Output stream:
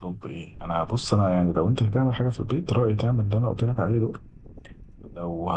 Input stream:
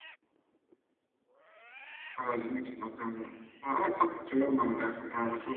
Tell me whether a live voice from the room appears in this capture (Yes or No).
Yes